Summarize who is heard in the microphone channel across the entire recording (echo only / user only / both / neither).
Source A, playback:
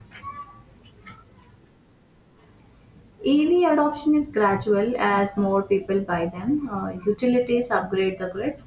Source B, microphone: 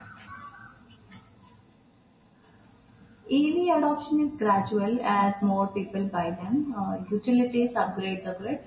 echo only